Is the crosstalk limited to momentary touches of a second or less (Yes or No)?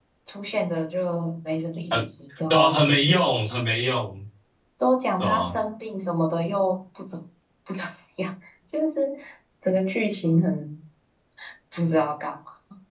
Yes